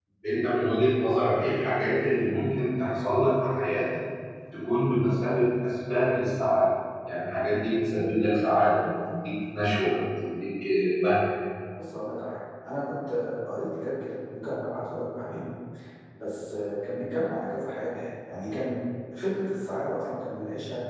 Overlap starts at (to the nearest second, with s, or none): none